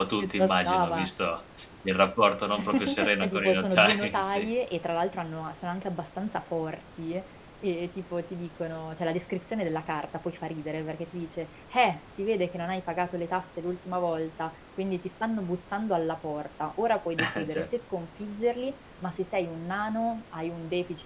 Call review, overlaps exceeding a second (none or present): present